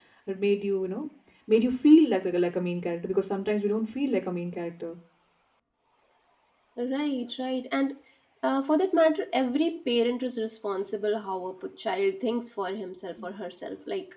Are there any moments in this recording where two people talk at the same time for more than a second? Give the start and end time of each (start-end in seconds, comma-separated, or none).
none